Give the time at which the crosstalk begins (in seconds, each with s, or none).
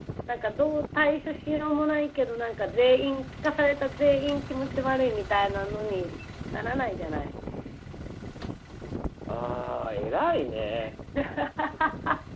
none